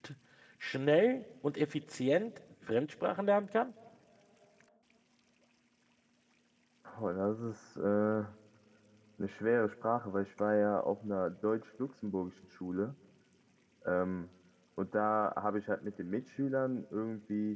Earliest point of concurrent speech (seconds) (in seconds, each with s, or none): none